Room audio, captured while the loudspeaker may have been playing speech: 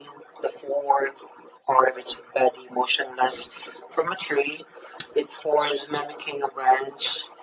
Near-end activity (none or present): none